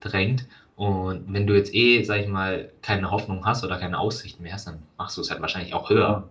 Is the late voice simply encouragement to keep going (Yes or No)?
No